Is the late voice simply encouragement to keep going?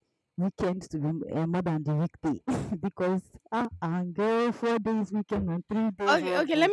No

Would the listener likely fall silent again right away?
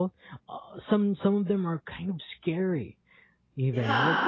Yes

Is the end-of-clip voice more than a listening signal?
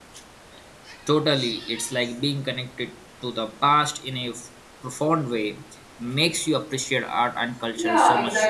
Yes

